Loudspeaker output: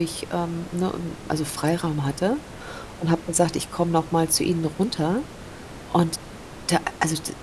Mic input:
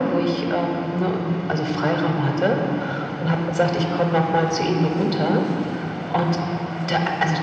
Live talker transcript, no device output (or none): none